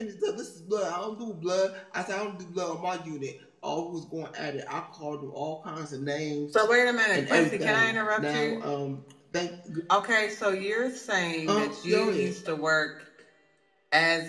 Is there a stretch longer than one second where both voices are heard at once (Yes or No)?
Yes